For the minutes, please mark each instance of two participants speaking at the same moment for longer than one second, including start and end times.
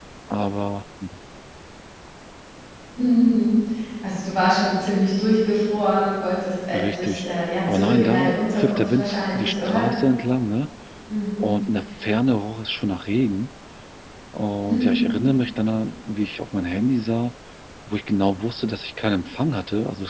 7.7-9.9

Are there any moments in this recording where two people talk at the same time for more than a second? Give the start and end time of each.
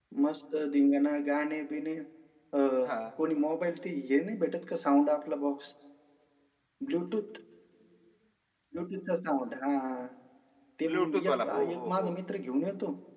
10.9-12.1

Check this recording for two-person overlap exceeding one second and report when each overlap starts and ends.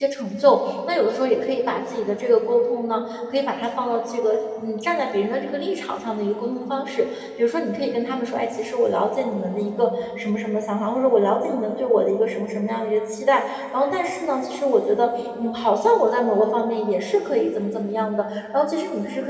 none

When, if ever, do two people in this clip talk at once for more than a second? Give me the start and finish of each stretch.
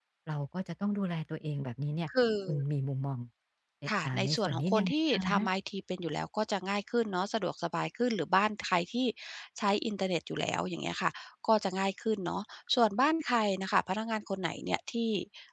4.0-5.5

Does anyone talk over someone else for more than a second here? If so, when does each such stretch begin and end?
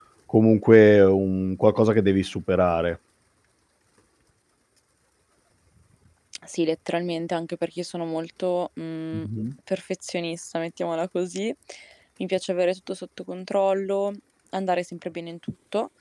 none

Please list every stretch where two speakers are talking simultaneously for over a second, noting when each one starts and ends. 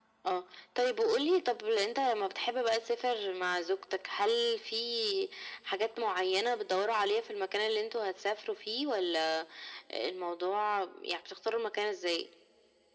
none

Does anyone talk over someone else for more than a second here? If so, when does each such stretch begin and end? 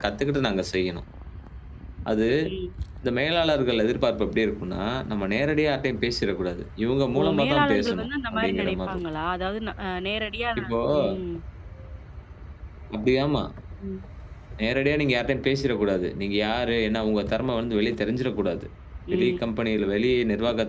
7.2-9.0

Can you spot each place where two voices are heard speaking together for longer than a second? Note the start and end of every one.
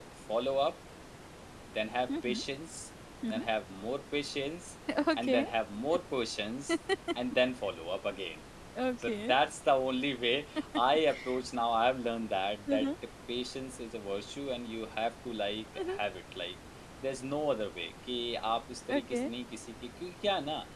none

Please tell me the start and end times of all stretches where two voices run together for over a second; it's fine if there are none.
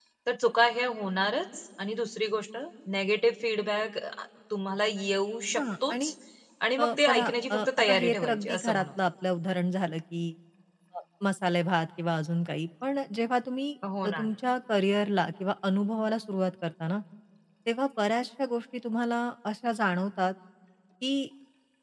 6.8-9.0

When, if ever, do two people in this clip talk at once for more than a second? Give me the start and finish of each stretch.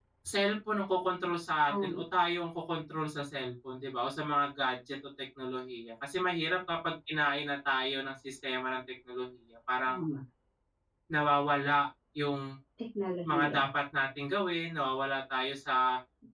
none

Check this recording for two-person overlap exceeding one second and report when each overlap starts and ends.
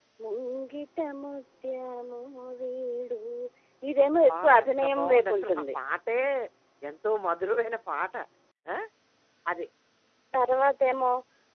4.3-5.5

